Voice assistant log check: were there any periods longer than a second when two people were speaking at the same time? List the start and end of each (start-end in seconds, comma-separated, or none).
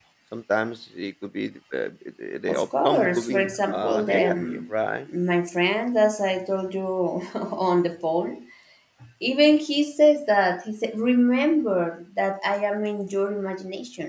2.5-4.7